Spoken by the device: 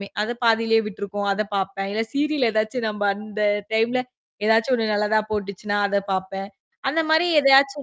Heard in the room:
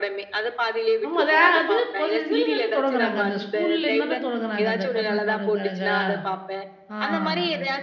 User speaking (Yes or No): Yes